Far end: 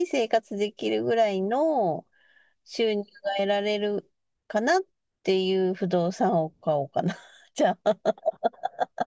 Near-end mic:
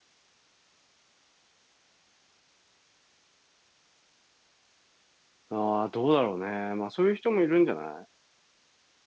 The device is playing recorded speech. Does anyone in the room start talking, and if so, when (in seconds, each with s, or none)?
5.5 s